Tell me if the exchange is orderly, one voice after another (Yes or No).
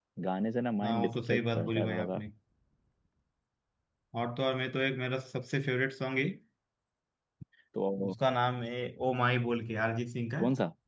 No